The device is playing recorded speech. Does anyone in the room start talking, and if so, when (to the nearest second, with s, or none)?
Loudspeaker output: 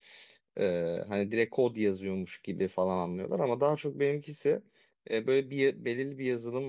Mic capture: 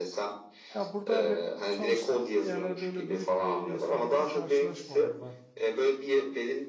1 s